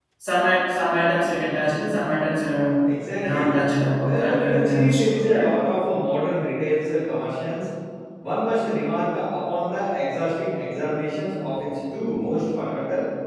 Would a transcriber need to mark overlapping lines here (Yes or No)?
Yes